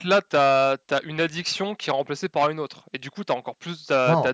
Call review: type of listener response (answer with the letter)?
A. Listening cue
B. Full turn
B